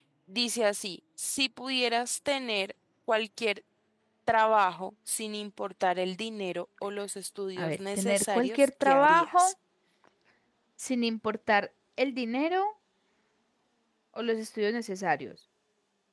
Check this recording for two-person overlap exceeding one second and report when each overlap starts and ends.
7.6-9.5

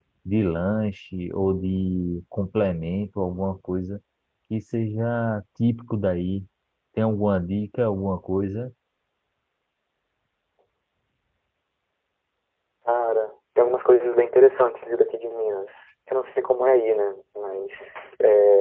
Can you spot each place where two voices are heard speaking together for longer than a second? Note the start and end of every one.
none

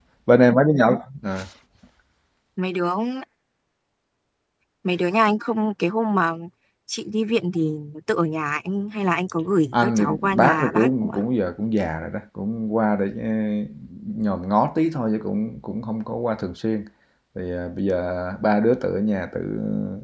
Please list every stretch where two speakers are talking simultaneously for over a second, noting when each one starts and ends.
9.7-11.2

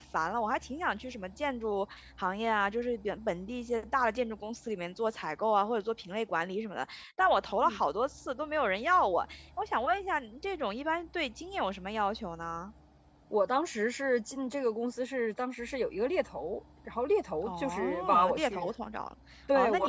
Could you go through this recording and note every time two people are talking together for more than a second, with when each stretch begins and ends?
17.5-18.7

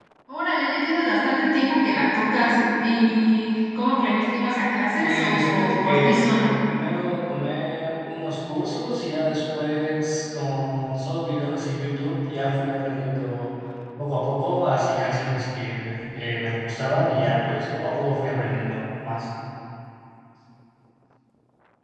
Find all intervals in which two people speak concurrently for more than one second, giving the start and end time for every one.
5.0-6.3

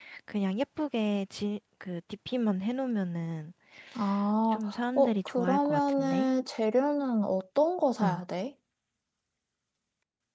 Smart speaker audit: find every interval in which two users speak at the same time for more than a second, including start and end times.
5.0-6.3

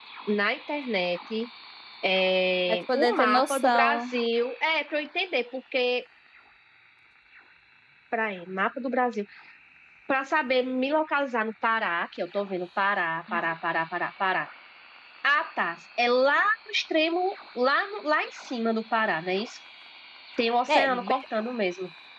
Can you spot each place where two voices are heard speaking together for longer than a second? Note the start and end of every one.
2.7-4.0

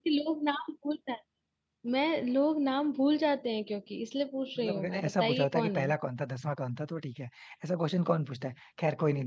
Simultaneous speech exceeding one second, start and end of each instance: 4.6-5.9

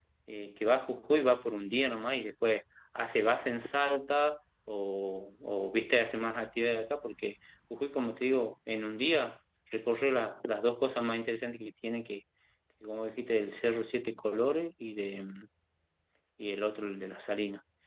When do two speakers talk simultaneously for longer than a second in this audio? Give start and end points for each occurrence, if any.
none

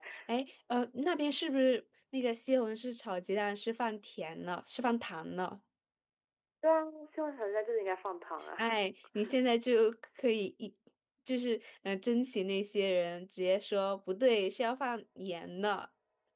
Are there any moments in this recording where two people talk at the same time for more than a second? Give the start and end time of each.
none

